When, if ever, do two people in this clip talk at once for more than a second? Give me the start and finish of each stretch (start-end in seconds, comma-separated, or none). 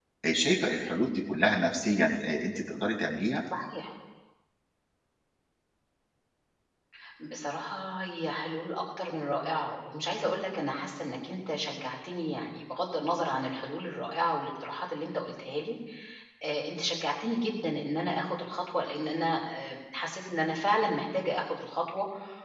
none